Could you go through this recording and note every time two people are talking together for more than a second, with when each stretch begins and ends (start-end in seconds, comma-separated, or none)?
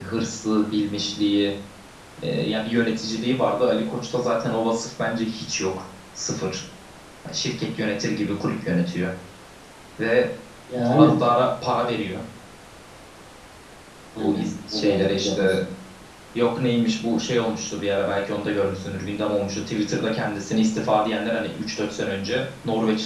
14.2-15.6